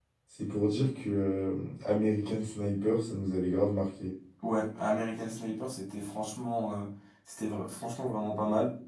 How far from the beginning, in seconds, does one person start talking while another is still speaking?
none

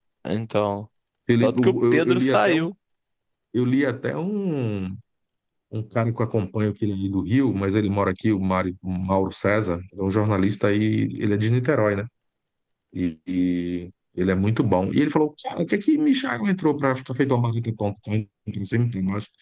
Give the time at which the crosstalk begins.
1 s

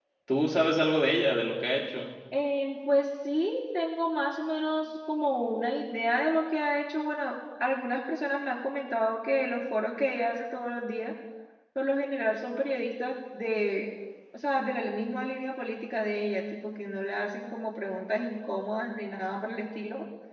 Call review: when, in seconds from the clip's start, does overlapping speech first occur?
none

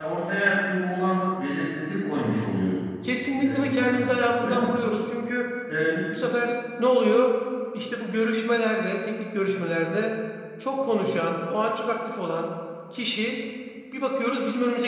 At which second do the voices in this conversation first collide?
3 s

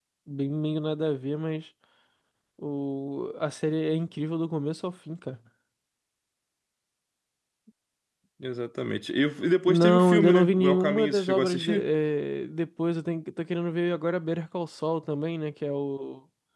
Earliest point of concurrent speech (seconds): 10 s

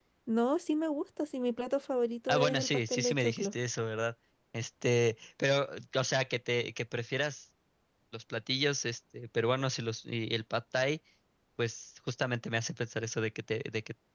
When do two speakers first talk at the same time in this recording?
2 s

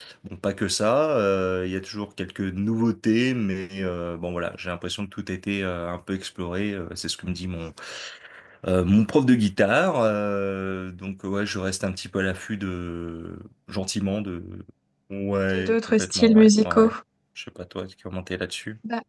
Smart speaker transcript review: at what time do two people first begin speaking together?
16 s

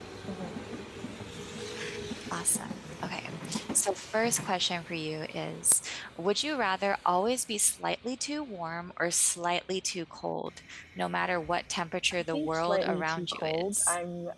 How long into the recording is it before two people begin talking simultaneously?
12 s

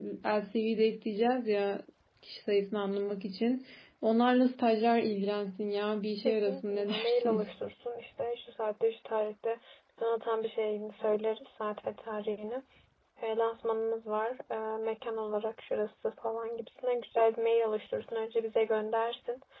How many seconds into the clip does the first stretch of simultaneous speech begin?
6 s

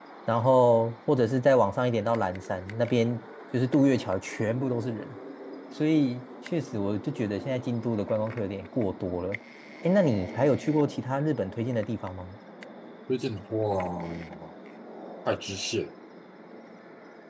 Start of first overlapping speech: none

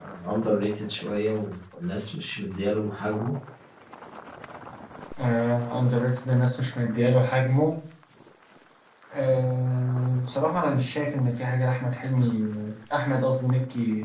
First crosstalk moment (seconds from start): none

